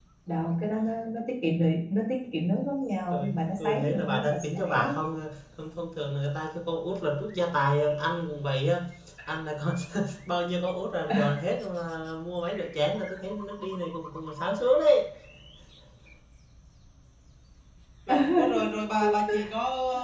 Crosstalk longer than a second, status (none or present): present